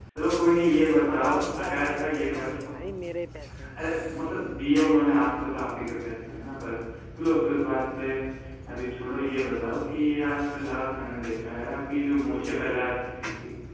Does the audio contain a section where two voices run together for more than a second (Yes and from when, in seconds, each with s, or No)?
Yes, from 1.1 s